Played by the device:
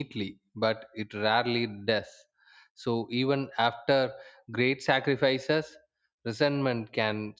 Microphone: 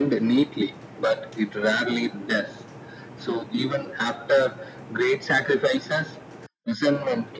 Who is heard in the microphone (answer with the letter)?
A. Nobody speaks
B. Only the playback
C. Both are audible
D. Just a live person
B